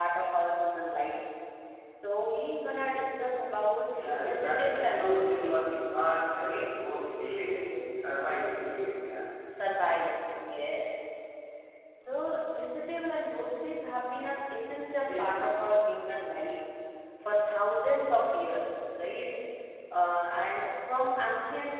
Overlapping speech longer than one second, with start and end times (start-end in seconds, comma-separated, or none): 4.1-5.6